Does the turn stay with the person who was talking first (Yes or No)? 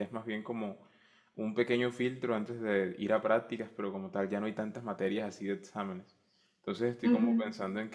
Yes